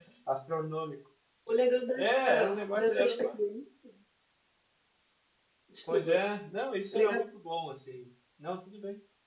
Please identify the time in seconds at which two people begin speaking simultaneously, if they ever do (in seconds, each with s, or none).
2.0 s